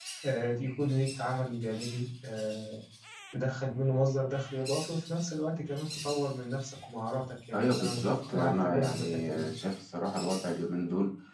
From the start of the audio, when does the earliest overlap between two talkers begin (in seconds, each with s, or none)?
7.5 s